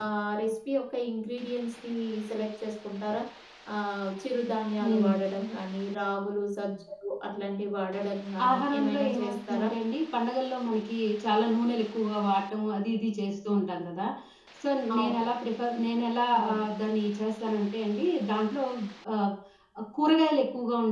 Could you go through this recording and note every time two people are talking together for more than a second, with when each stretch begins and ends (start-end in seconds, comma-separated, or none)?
8.5-9.7